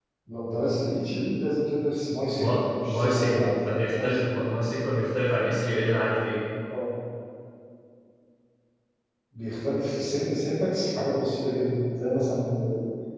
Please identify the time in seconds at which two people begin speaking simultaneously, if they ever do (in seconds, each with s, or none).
2.3 s